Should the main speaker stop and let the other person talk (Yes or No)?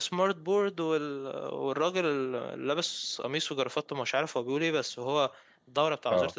No